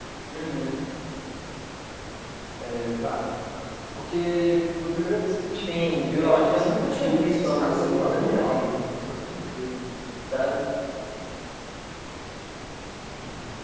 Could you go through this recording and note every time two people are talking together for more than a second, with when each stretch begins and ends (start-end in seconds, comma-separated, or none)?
5.7-8.7